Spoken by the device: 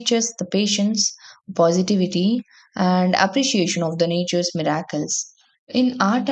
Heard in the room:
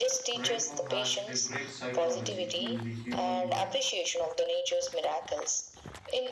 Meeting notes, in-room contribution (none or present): present